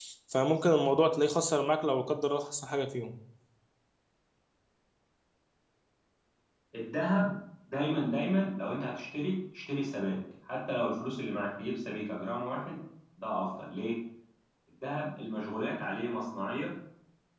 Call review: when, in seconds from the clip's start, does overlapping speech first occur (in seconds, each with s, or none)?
none